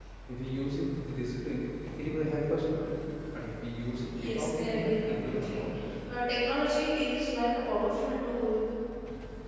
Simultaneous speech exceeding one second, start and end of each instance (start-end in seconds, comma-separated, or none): 4.2-5.6